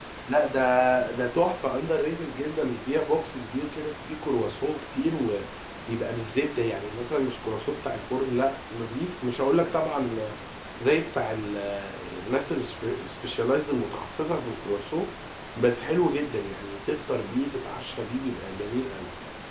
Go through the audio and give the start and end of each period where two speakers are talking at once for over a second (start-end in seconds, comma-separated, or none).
none